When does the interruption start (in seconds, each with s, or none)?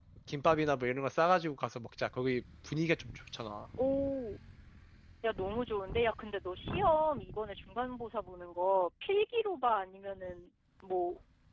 none